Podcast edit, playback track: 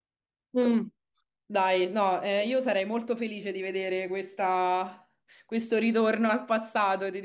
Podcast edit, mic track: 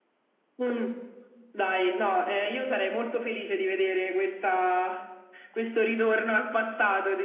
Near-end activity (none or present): none